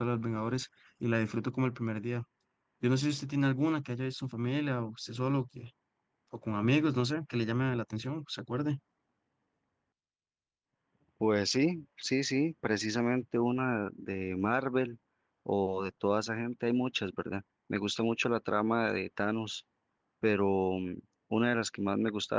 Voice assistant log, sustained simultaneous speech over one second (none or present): none